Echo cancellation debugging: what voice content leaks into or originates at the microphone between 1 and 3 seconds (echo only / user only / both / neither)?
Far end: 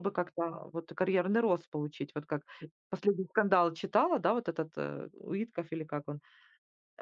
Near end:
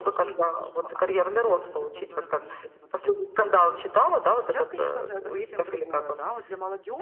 both